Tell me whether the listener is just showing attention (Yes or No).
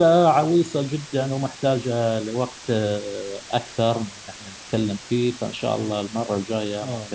No